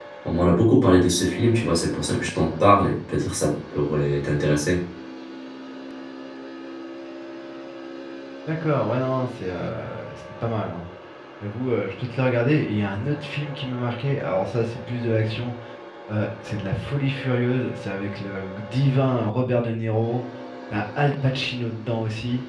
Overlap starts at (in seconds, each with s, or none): none